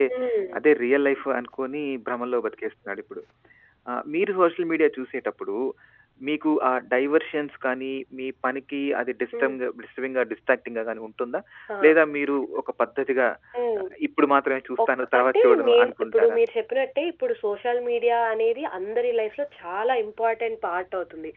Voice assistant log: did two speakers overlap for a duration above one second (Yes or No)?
Yes